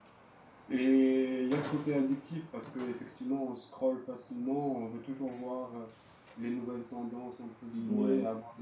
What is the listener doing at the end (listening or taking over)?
listening